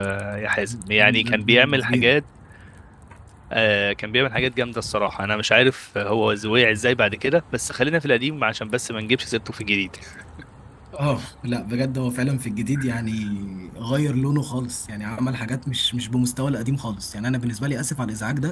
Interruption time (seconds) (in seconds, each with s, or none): 0.7 s